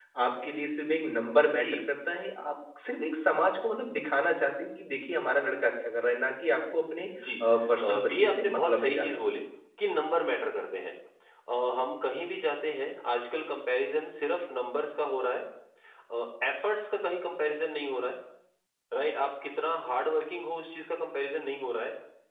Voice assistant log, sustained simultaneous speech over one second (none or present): present